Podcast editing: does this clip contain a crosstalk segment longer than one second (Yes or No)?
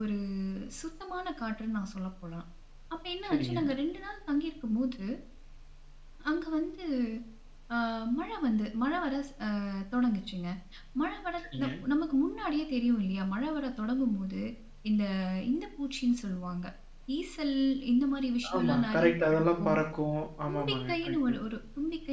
Yes